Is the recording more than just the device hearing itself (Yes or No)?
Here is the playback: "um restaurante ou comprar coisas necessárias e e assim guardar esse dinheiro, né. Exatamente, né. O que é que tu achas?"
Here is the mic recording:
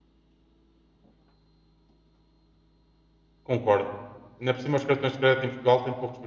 Yes